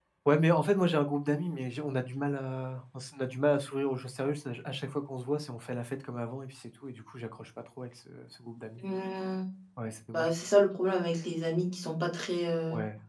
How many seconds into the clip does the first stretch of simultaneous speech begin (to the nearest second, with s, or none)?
none